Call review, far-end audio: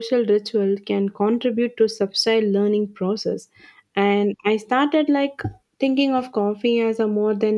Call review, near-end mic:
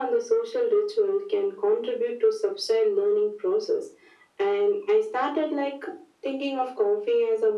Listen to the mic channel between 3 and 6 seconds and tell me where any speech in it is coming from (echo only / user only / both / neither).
echo only